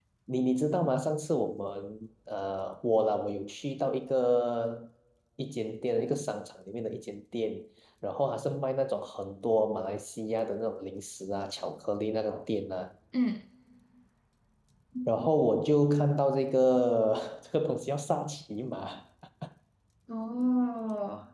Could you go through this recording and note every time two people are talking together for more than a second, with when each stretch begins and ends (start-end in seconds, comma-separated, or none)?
none